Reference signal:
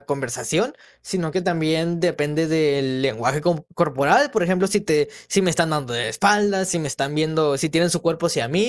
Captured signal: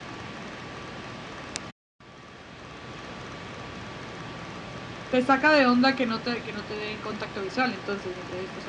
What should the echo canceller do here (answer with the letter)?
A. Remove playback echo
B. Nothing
B